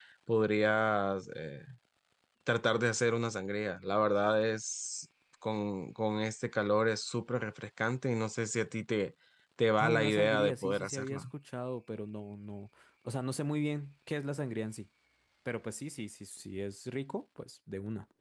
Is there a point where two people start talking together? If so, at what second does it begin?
9.8 s

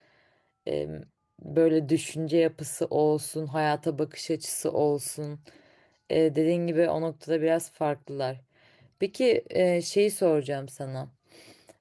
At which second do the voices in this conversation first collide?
none

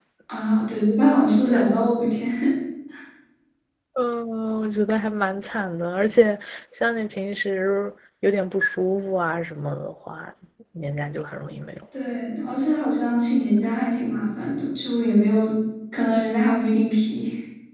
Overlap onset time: none

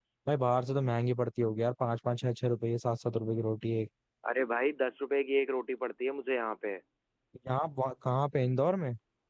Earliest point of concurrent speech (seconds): none

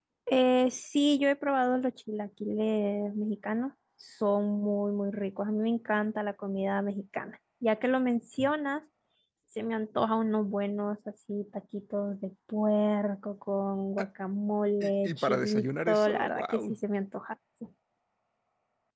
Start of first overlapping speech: 14.8 s

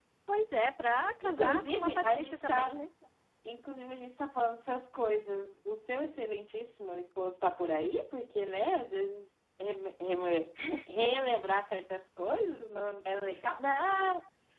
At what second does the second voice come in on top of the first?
1.2 s

